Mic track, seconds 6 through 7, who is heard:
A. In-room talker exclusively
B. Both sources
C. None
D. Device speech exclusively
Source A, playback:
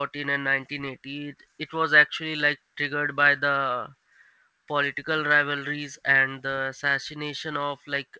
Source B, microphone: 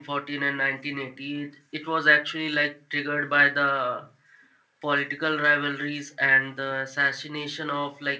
D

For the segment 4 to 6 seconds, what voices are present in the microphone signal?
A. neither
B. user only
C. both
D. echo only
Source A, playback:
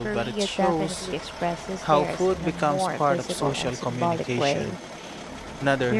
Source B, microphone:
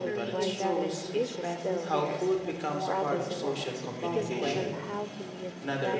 C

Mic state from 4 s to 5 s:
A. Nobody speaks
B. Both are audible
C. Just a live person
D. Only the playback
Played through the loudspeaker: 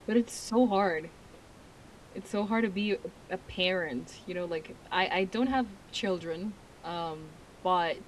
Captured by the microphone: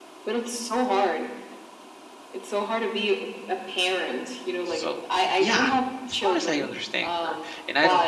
B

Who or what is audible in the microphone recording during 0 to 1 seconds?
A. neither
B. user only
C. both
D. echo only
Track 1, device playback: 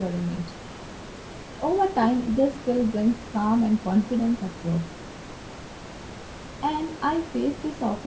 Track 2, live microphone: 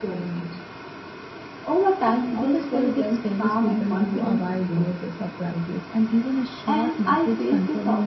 D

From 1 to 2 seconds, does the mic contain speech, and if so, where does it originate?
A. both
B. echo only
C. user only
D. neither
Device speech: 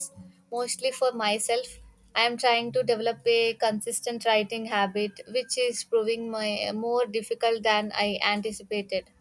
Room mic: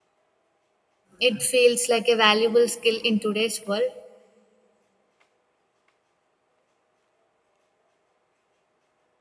C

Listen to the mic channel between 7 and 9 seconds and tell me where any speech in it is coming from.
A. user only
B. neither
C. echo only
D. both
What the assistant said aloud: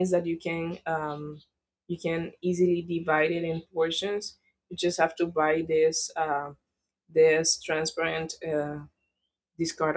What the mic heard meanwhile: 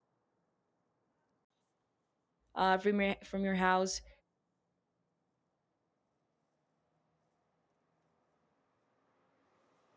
B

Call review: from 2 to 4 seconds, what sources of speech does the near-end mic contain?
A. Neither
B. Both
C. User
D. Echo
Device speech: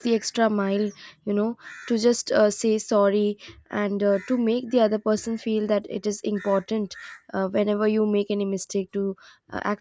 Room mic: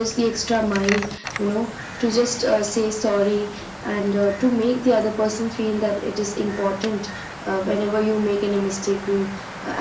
D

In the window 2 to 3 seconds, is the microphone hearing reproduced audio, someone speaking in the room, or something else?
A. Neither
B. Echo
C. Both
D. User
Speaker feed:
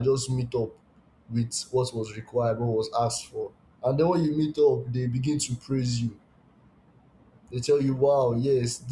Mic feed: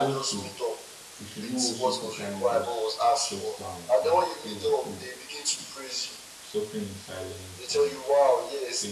C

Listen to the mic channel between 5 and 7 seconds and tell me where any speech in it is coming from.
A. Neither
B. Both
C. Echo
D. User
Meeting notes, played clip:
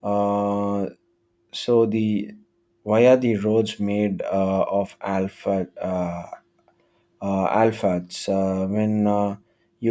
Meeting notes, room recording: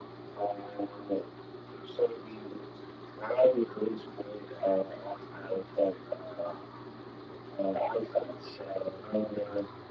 C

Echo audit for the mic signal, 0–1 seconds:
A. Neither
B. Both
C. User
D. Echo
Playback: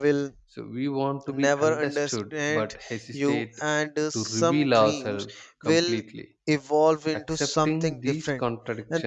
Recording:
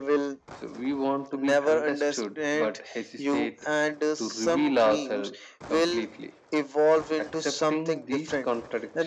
D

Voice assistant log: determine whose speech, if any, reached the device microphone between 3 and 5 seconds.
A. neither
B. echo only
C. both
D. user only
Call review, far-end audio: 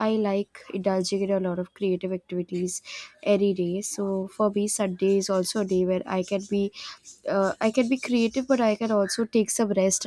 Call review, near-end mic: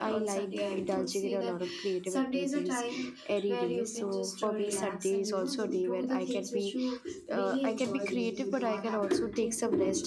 C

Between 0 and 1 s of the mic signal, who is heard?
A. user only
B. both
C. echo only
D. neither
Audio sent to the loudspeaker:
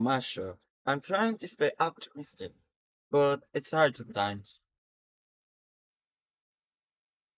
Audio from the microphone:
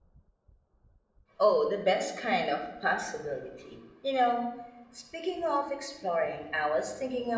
D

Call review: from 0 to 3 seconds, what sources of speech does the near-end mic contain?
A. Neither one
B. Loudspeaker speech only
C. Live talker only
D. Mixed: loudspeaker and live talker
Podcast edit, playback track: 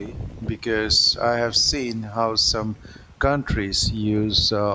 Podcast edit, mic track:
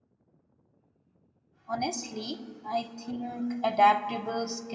C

